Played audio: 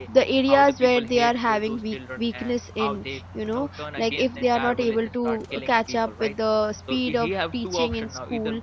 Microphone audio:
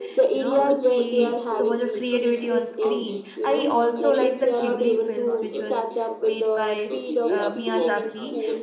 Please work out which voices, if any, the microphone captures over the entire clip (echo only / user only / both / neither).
both